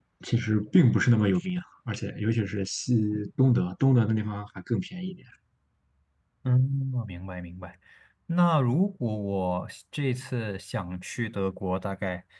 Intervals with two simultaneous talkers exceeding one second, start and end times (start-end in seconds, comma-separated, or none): none